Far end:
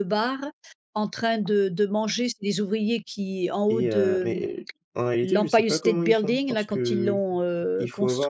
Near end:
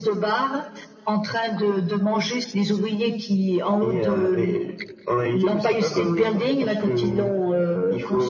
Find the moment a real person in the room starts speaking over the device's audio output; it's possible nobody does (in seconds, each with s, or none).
none